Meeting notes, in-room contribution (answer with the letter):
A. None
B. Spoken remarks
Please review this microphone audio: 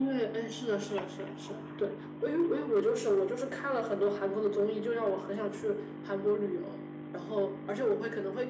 A